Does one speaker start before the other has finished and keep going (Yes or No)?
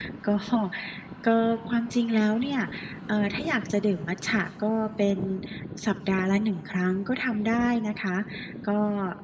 No